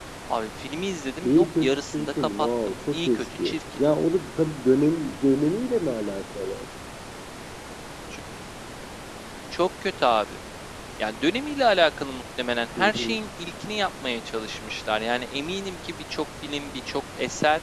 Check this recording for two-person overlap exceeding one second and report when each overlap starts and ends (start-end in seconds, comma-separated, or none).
1.2-3.6